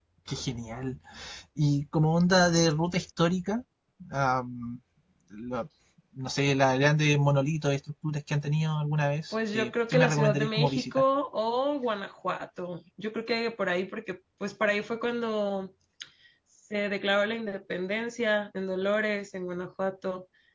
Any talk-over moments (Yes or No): Yes